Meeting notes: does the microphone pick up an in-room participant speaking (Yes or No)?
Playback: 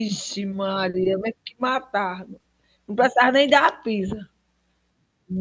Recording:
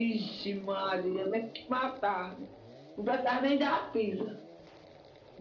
No